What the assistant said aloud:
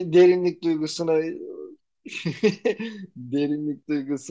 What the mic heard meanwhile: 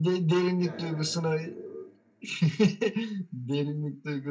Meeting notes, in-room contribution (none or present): present